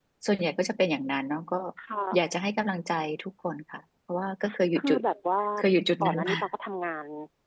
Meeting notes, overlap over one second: none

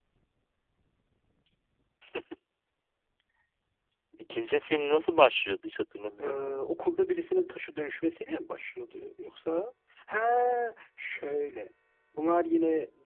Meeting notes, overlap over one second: none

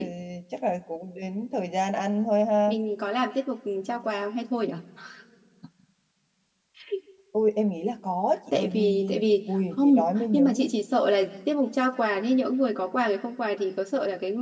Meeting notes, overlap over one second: present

